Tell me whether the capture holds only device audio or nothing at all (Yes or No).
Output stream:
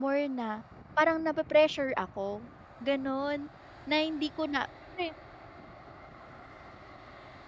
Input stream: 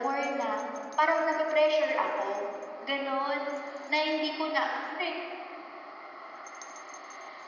Yes